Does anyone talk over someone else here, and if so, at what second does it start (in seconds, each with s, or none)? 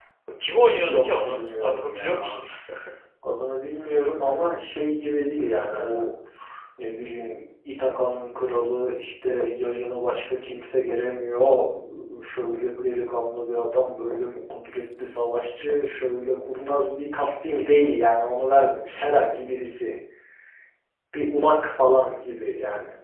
0.8 s